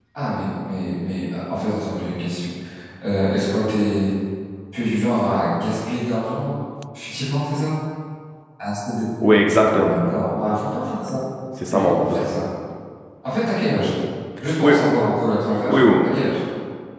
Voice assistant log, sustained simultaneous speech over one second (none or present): none